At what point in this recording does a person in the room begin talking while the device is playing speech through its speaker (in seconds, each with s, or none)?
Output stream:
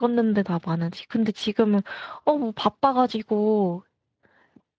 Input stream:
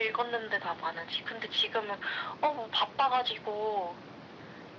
none